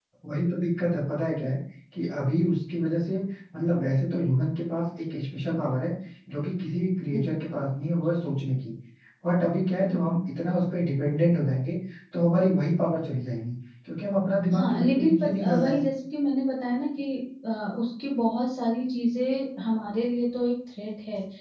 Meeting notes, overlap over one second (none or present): present